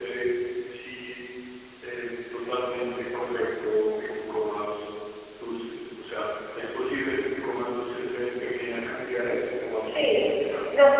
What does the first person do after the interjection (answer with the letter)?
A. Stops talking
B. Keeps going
A